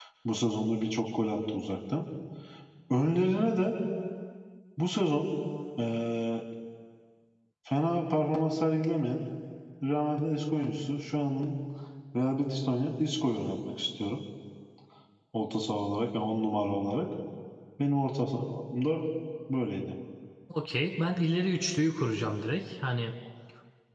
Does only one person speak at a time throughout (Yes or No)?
Yes